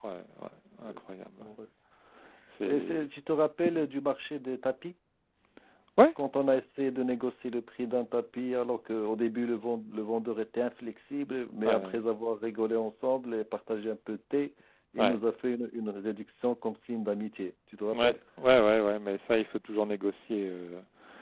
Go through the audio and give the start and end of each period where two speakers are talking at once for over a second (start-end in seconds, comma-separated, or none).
none